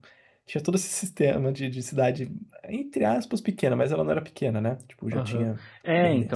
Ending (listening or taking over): taking over